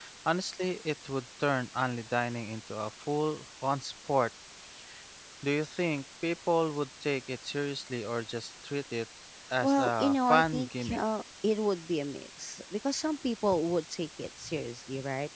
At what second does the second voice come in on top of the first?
9.6 s

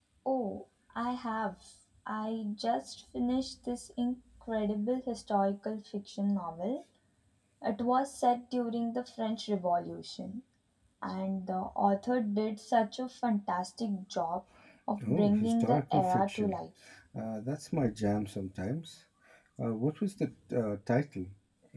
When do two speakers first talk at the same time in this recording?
15.1 s

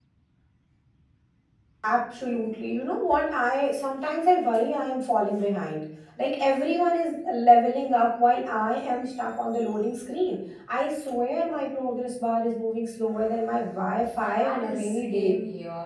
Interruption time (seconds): 14.0 s

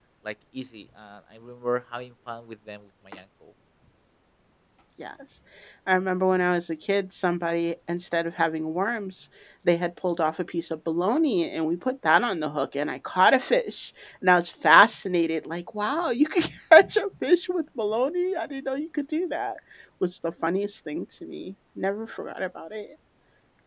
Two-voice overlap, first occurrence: none

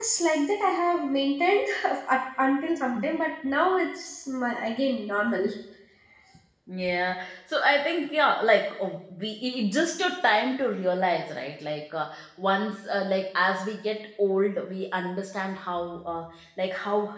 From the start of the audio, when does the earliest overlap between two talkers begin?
none

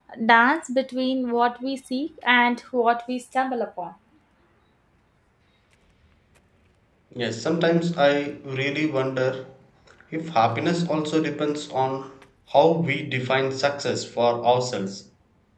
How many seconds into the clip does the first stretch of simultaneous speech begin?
none

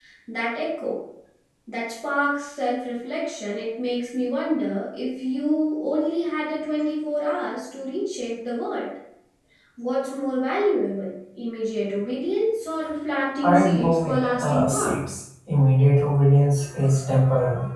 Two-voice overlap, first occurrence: 13.4 s

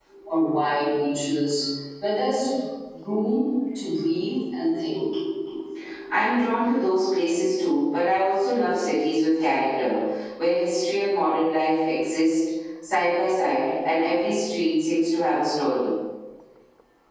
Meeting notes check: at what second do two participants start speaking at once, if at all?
none

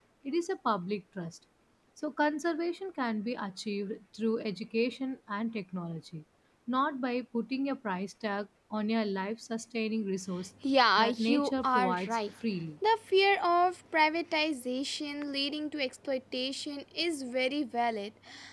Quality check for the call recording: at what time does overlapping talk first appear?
11.0 s

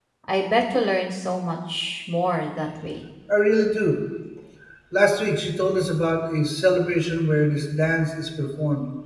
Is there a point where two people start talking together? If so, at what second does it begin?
none

